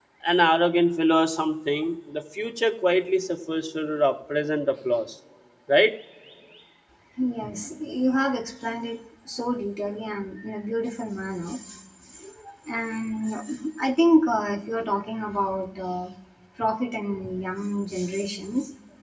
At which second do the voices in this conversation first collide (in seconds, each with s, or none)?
none